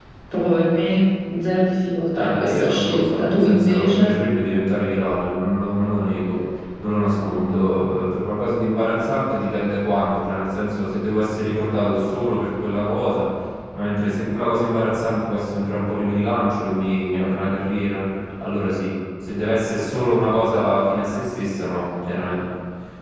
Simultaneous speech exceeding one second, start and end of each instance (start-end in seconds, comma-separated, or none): 2.1-4.2